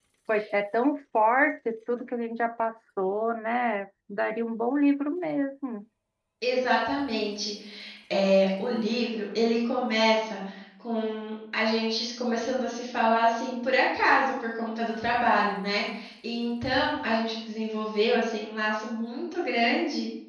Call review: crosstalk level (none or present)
none